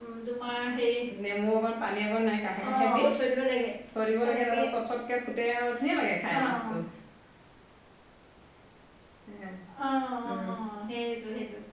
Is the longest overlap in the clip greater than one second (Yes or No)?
No